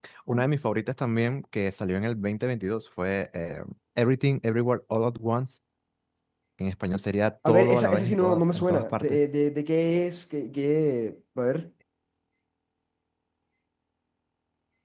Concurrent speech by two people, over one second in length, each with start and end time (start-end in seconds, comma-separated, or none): 7.5-9.2